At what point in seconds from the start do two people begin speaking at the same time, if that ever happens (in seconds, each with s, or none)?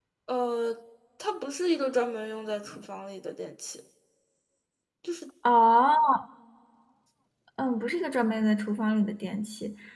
none